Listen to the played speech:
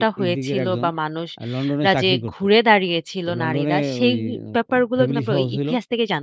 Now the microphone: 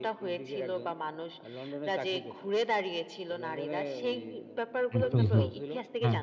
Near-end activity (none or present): present